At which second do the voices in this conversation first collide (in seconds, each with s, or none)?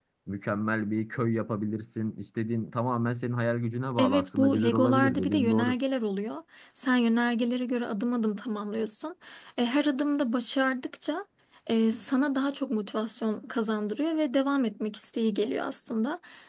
4.0 s